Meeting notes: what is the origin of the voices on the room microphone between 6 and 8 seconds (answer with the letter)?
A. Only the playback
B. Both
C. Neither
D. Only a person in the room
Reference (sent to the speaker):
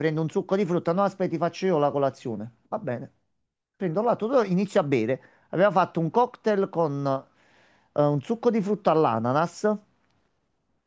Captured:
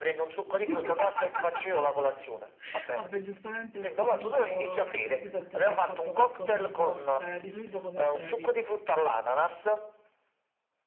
B